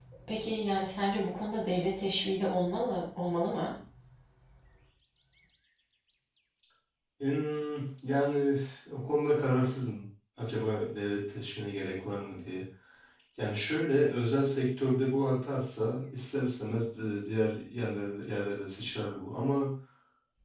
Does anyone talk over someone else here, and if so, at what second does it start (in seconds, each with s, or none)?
none